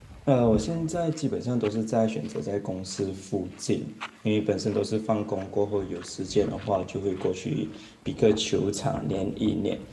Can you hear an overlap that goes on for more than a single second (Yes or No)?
No